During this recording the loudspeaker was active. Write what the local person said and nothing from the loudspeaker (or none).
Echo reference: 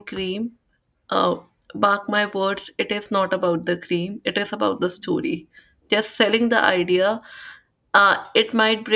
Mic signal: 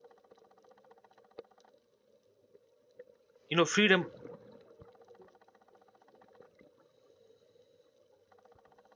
you know freedom